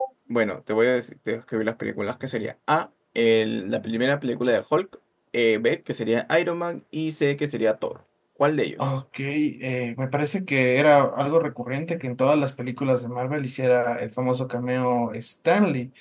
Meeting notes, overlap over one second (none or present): none